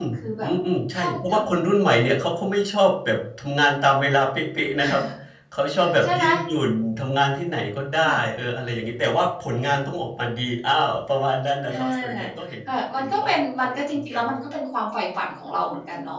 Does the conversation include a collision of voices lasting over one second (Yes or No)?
Yes